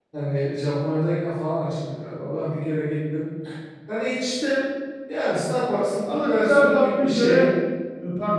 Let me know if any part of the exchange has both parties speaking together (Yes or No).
Yes